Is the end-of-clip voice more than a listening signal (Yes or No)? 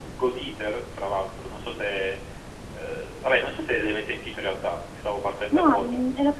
Yes